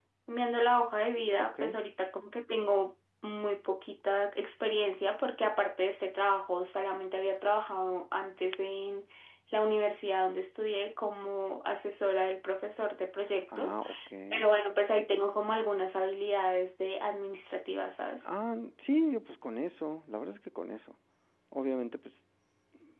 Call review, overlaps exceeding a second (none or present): none